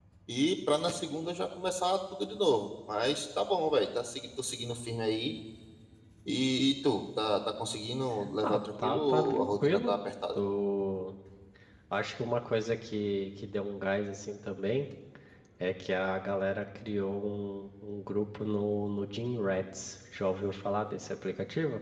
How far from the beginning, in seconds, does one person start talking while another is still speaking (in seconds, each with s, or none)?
8.4 s